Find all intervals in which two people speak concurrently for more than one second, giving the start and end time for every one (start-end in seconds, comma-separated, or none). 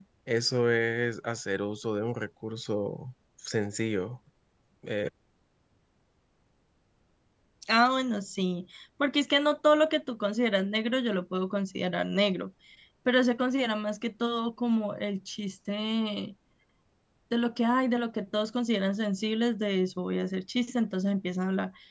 none